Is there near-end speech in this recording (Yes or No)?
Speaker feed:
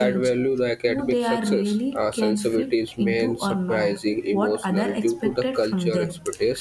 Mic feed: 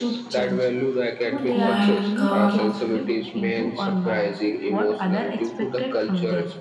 Yes